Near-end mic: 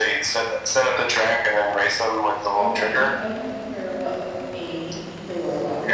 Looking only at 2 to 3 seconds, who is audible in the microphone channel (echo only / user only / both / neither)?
both